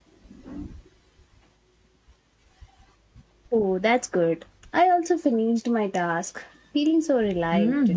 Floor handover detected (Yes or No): Yes